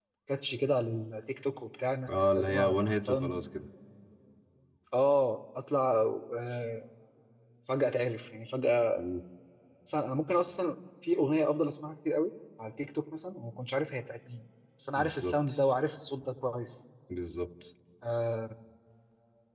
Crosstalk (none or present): present